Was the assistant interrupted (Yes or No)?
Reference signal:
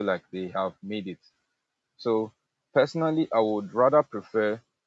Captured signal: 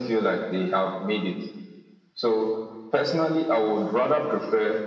No